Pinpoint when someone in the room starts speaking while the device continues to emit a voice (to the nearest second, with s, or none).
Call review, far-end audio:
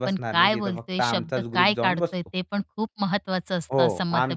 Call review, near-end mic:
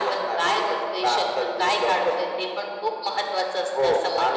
none